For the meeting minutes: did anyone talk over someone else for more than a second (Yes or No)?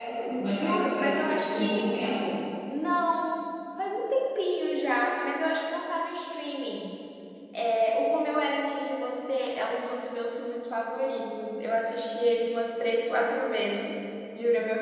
Yes